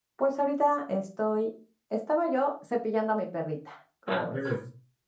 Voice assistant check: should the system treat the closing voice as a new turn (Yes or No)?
Yes